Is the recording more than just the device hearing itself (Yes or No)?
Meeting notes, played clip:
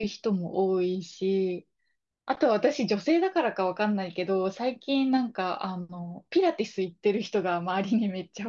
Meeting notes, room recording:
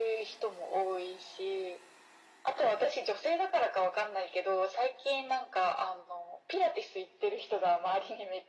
No